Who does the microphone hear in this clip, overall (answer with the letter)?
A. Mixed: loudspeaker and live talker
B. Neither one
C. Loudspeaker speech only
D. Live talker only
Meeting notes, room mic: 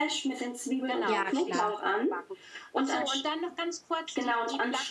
A